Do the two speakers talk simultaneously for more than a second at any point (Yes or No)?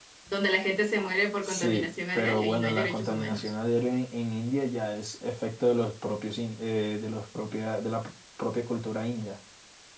Yes